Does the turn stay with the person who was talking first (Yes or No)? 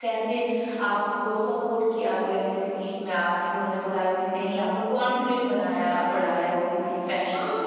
No